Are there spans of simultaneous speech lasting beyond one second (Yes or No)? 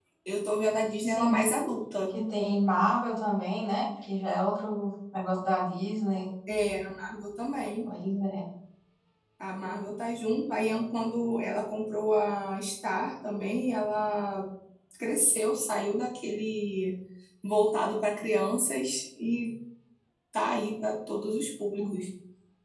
No